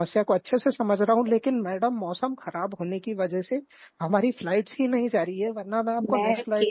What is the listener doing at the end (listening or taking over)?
taking over